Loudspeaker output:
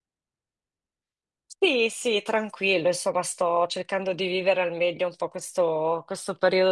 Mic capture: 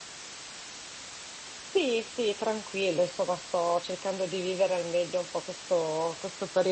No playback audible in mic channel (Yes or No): No